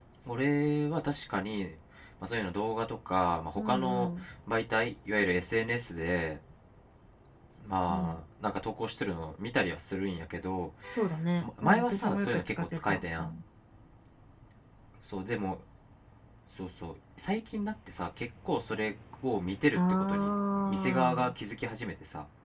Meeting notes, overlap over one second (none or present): present